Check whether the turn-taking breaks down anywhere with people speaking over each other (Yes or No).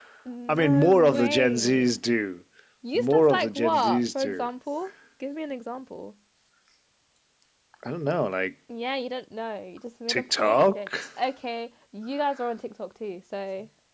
Yes